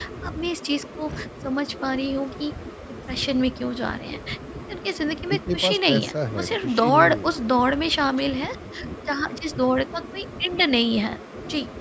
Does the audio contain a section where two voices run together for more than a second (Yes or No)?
Yes